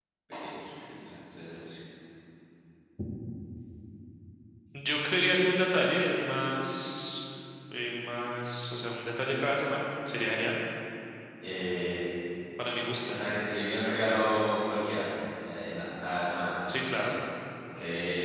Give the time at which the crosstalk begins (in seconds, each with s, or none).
none